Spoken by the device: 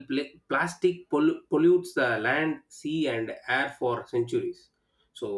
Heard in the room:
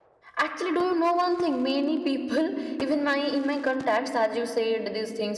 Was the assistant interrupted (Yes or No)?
Yes